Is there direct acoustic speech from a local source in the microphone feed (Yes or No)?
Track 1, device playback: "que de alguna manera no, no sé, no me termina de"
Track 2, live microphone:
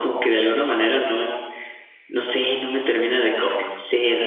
No